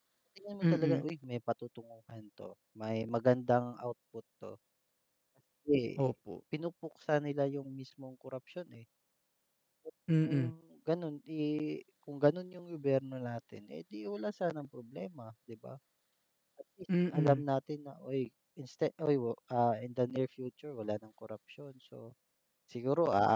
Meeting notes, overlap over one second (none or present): none